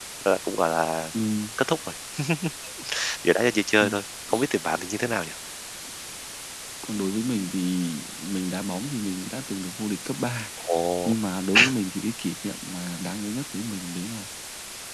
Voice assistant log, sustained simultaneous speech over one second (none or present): none